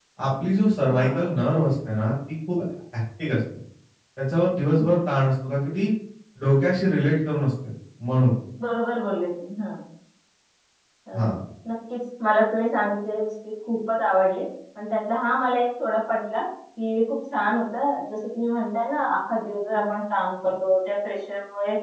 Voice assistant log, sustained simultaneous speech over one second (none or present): none